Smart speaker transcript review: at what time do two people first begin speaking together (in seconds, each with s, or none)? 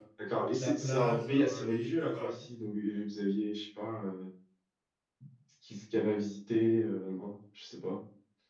0.6 s